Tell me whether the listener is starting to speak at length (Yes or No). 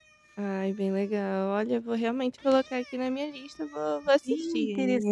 Yes